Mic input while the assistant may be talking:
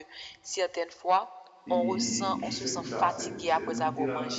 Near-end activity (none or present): present